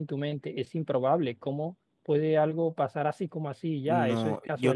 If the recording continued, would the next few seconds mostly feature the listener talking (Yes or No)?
Yes